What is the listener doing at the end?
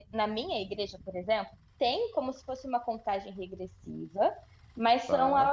listening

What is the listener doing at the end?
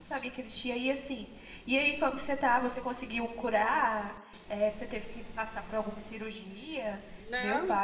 taking over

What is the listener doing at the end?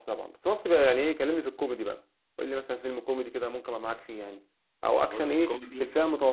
listening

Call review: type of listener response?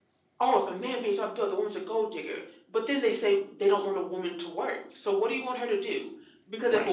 listening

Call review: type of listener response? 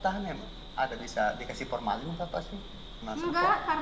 taking over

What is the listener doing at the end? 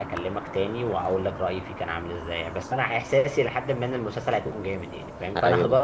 listening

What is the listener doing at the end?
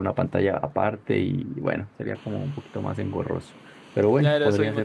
taking over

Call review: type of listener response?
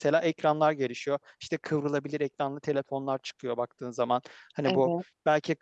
listening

